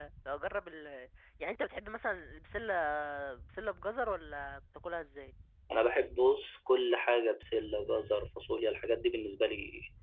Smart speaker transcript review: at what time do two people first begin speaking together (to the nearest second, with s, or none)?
none